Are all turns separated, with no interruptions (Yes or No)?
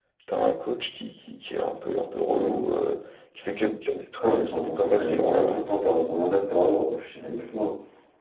No